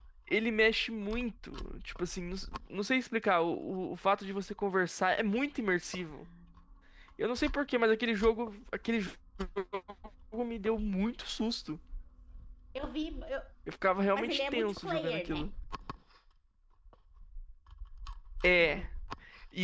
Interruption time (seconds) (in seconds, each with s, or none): 14.2 s